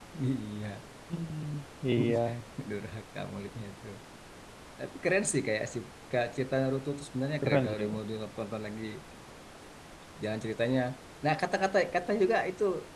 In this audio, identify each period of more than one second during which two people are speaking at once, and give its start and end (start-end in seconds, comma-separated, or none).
none